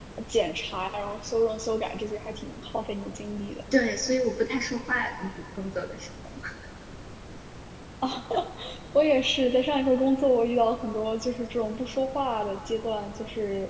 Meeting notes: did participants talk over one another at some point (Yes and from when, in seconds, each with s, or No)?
No